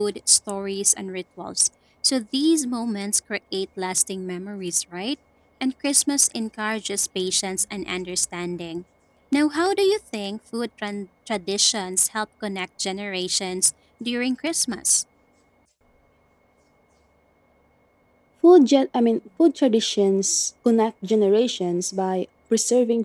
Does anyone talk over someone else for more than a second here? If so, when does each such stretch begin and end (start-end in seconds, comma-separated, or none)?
none